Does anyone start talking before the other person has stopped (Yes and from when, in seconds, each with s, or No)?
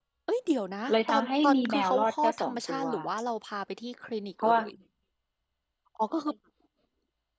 Yes, from 0.9 s